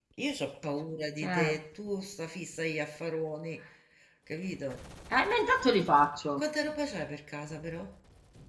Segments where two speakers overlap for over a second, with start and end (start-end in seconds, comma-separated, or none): none